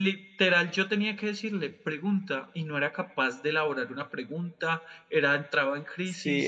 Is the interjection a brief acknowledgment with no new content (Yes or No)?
No